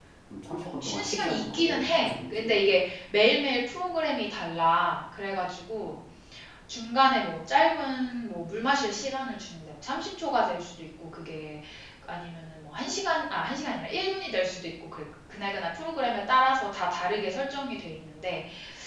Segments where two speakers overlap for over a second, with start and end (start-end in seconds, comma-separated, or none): 0.6-2.8